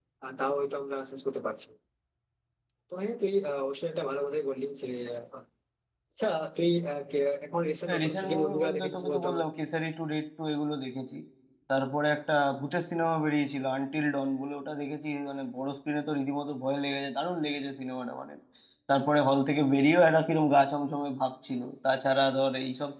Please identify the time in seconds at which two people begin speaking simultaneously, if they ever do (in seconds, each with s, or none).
7.9 s